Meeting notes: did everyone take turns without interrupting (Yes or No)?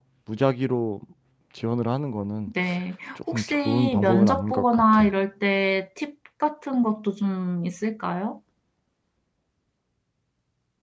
No